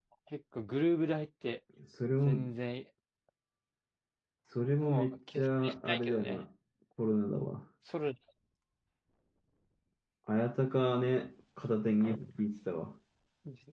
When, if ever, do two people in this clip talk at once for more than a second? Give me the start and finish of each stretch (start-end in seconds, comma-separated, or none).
4.8-6.4